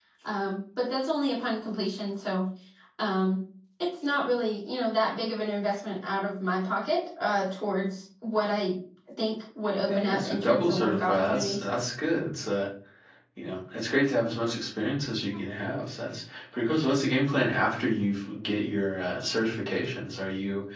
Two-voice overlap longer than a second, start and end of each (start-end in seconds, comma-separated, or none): 9.8-11.6